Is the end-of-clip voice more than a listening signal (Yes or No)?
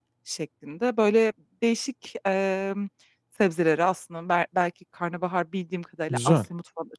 No